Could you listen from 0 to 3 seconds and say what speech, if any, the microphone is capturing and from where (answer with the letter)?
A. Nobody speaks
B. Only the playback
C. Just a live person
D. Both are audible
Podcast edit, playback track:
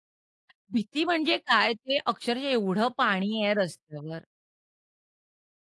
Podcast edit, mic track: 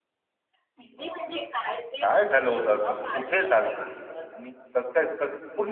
D